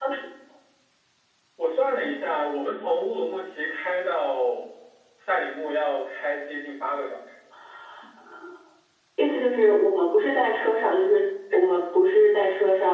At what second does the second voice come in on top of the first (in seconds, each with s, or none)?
none